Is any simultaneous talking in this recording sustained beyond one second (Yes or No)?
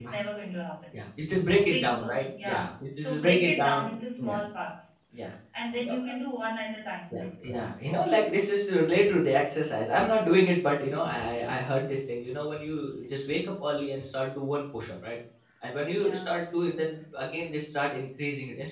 Yes